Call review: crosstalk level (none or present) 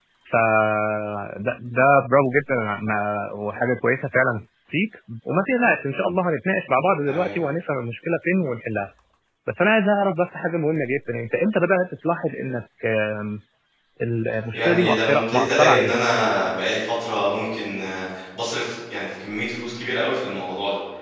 present